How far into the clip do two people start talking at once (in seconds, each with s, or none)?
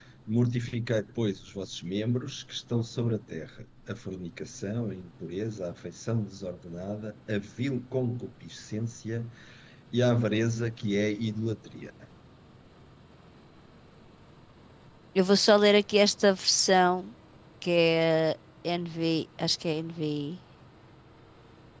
none